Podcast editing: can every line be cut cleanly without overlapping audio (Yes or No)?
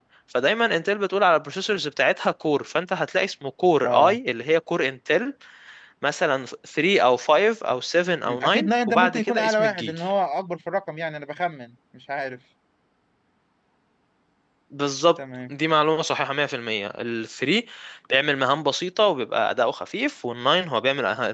No